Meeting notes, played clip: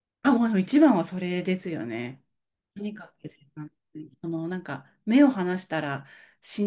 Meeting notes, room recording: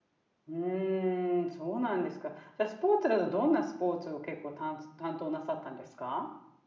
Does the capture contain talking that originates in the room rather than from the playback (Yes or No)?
Yes